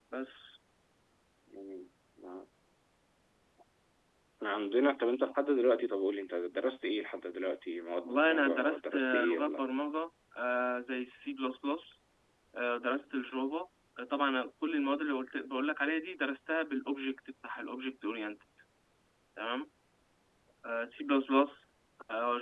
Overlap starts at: 8.1 s

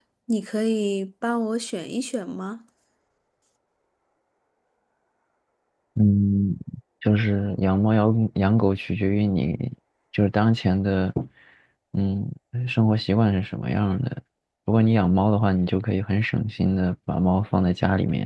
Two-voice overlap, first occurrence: none

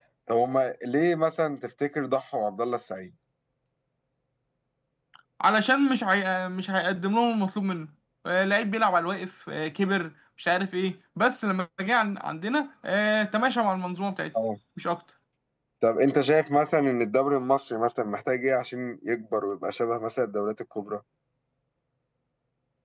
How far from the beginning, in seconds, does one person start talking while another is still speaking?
none

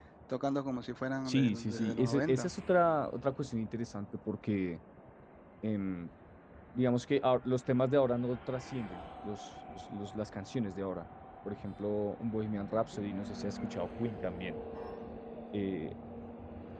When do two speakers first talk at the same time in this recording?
1.3 s

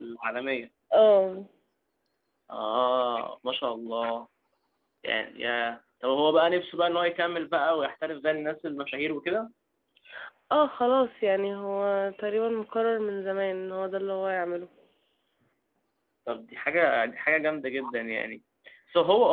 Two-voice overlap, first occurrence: none

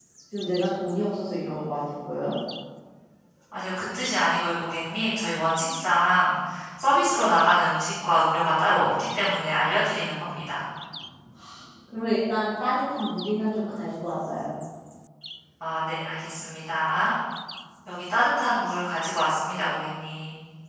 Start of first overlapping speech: none

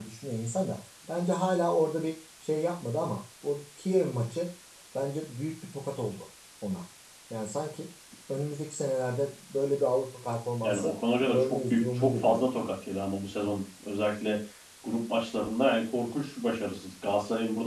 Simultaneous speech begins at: 10.6 s

